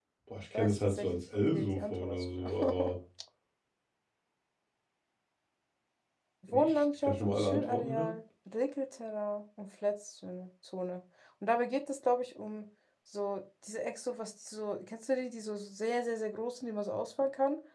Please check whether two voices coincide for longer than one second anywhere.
Yes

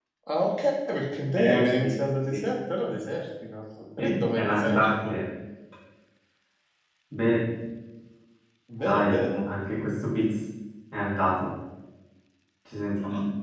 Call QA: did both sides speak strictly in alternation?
No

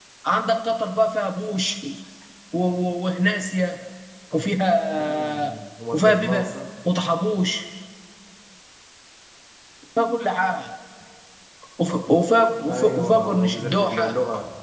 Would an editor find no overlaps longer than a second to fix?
No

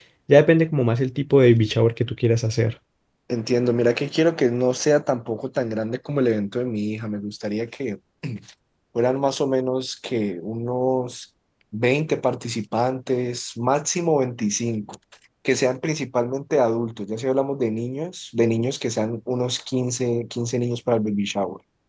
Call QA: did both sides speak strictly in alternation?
Yes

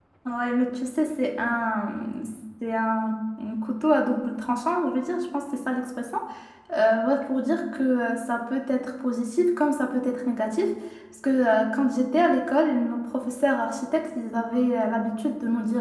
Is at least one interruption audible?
No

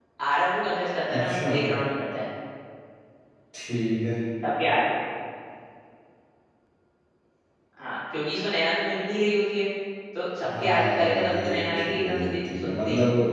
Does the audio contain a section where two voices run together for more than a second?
Yes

